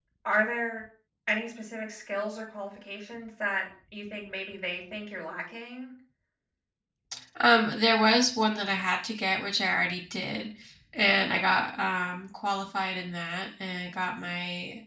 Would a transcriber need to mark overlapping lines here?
No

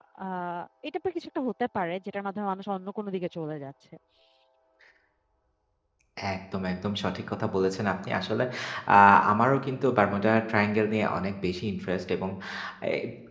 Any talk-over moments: No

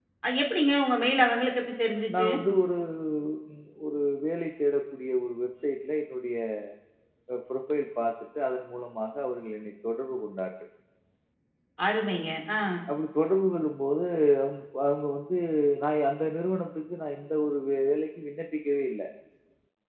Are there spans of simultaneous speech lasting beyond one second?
No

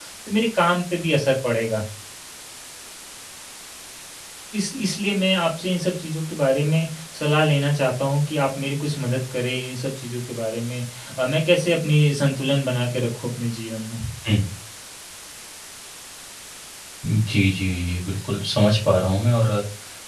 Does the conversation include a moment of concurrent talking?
No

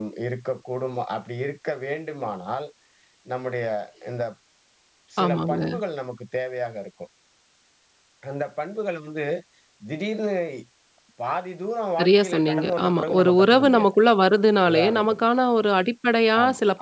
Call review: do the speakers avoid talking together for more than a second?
No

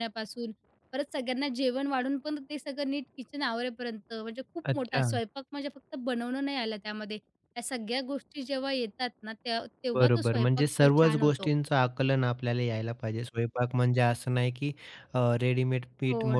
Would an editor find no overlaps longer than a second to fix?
No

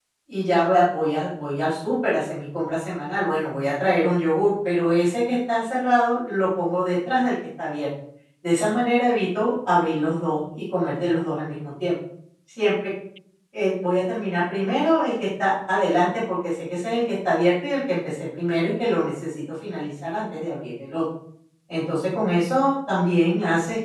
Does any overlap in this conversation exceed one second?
No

